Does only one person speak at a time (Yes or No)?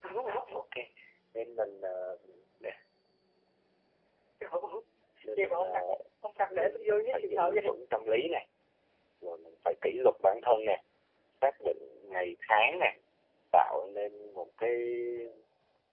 No